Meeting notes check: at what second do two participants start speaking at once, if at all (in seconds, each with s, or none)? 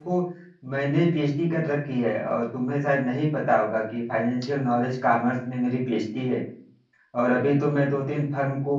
none